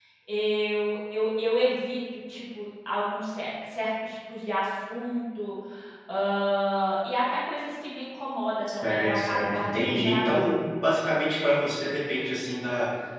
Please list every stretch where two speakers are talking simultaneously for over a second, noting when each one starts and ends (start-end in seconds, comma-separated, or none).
8.7-10.4